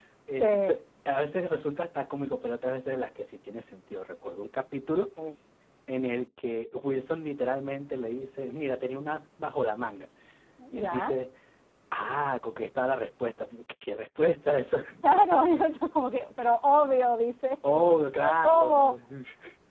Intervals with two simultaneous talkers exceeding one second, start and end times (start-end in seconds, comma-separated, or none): 17.6-18.9